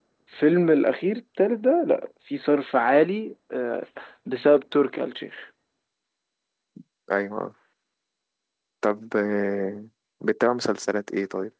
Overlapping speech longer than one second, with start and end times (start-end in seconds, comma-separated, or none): none